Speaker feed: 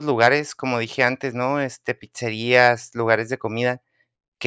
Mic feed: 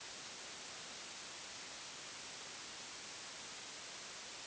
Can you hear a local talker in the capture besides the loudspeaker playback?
No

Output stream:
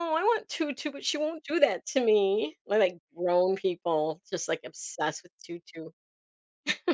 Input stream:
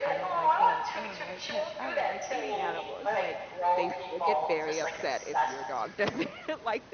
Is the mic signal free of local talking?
No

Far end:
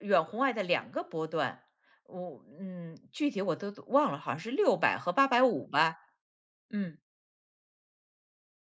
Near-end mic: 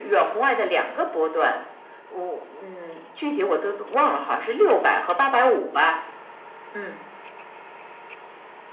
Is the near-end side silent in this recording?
Yes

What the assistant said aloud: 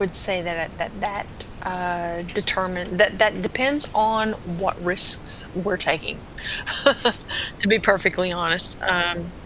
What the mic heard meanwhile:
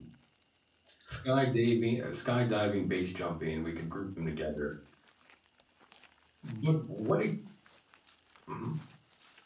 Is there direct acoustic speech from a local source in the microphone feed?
Yes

